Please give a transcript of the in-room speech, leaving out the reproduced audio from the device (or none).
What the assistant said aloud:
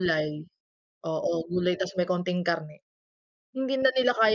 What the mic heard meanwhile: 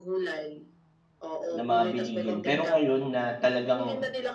ng mga bilihin. Pero ngayon na talagang,